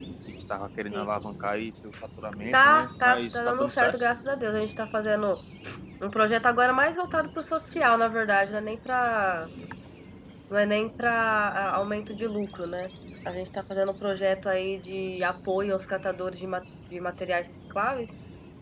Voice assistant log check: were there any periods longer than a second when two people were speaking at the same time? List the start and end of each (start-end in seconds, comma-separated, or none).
2.5-4.0